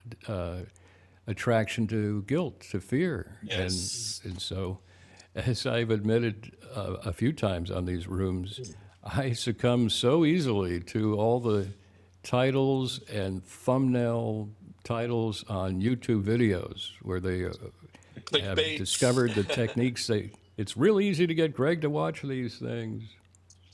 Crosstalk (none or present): present